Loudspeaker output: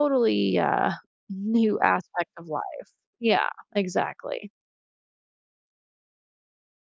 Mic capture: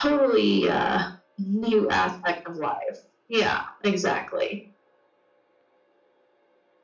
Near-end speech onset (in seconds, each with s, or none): none